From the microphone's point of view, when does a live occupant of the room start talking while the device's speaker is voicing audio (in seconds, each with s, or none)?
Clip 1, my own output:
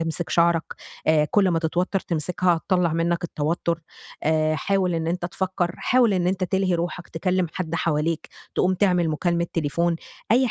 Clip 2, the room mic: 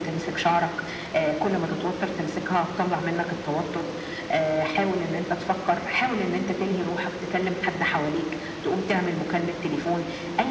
none